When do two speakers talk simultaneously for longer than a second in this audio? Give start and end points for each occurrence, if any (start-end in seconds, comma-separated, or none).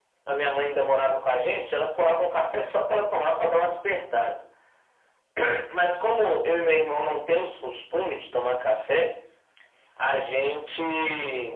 none